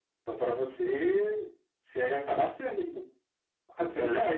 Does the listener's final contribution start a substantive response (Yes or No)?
No